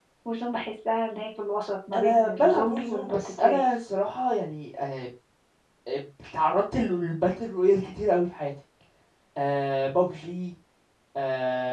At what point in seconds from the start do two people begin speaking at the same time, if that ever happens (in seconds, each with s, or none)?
1.9 s